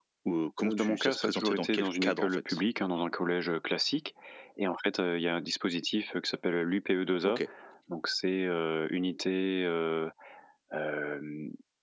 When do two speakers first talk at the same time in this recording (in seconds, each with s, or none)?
0.6 s